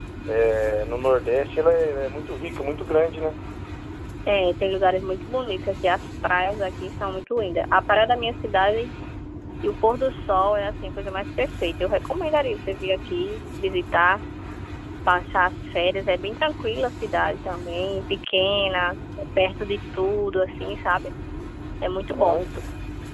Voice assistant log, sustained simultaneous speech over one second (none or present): none